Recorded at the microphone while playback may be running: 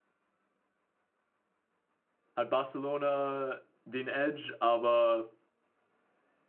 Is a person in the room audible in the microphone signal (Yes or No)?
Yes